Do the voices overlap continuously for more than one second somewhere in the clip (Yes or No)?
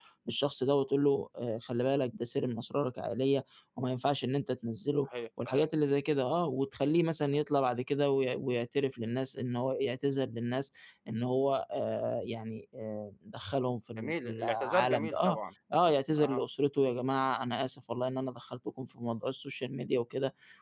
Yes